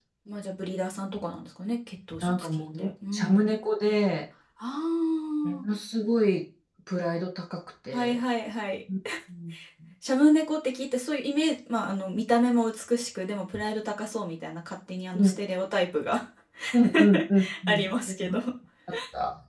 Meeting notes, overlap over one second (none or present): present